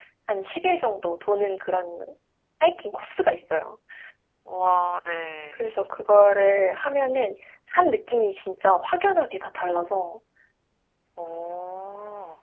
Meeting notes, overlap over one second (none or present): none